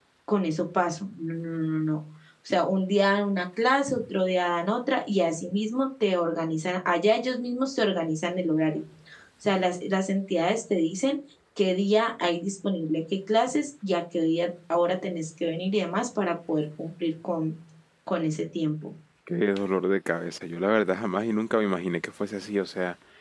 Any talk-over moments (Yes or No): No